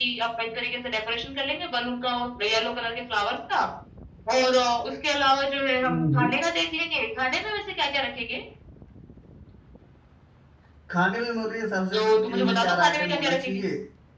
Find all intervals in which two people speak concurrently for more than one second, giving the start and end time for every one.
11.9-13.6

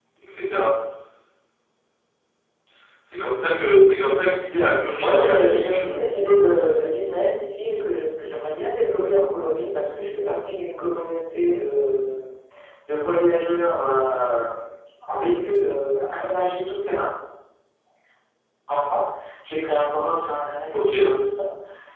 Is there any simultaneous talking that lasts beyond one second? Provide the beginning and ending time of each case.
4.6-5.9

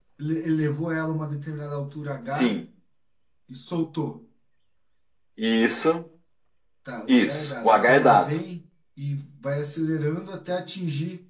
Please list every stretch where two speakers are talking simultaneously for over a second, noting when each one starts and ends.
7.1-8.3

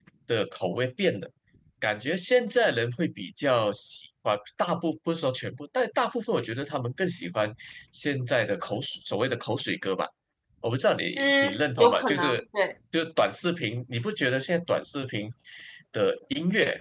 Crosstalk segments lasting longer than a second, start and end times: 11.2-12.4

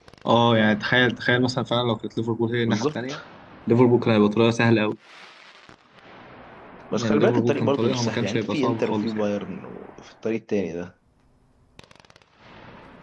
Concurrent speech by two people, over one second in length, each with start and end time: 7.0-9.2

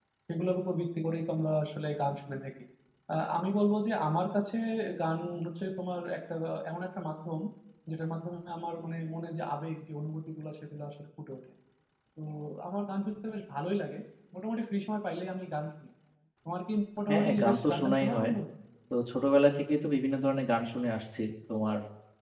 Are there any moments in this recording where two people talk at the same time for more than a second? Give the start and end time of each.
17.1-18.3

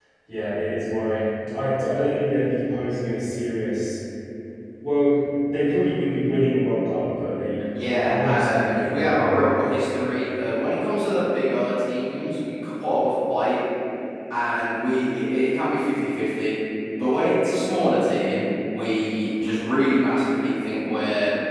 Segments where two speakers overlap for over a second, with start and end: 7.8-9.4

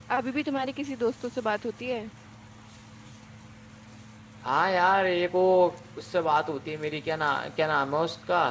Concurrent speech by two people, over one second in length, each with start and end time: none

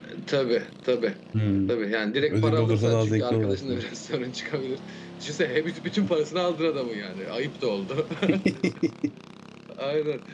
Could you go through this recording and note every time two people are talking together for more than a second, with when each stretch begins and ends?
2.3-3.8

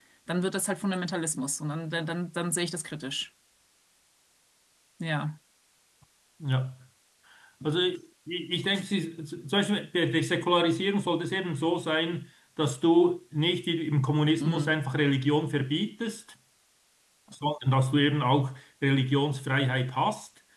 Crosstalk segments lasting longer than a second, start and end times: none

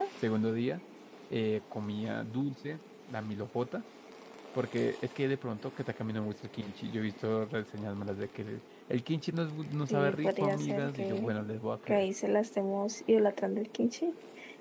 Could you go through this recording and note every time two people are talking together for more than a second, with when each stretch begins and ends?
9.9-11.3

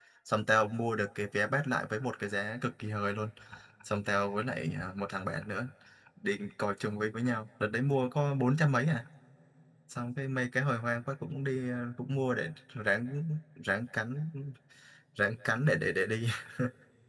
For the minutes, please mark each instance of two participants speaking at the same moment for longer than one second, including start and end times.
none

